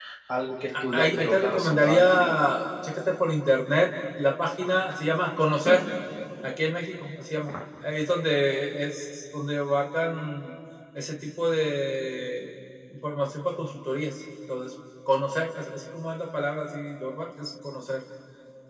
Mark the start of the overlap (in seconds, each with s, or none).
0.9 s